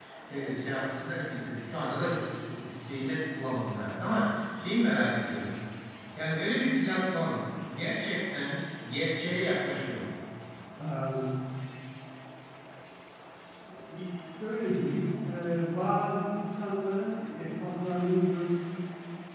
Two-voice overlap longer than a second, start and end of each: none

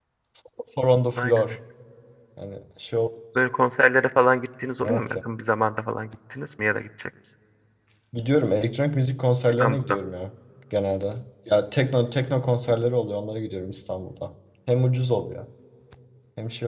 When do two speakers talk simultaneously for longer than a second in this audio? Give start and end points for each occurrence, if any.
none

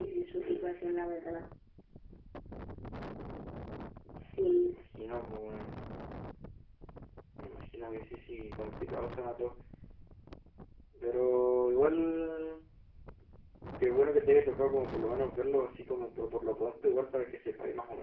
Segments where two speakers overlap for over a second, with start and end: none

